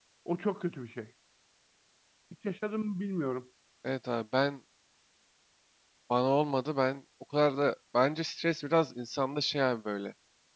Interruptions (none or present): none